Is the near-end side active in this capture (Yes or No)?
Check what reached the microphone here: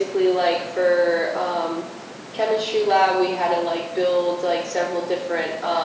No